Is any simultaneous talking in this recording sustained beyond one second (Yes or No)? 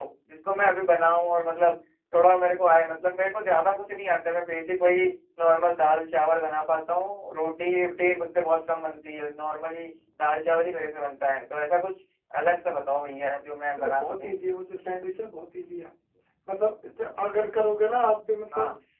No